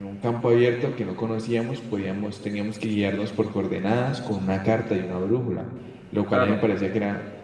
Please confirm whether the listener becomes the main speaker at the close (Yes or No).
No